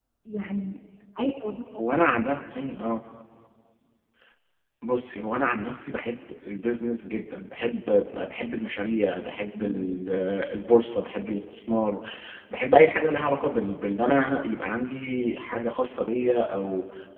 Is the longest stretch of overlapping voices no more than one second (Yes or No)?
Yes